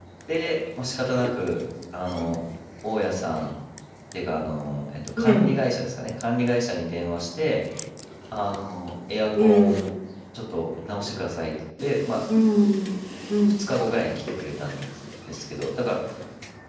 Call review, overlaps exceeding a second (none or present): none